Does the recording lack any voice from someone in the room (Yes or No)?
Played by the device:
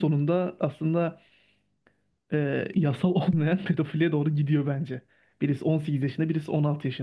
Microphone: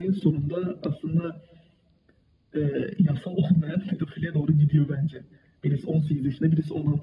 Yes